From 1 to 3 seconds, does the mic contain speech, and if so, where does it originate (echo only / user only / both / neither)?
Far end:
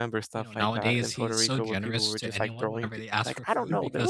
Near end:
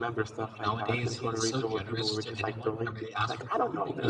echo only